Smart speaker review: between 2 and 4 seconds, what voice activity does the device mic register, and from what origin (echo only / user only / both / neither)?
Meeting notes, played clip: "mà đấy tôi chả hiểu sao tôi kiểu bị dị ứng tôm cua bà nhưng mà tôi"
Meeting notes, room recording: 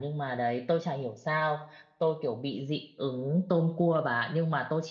echo only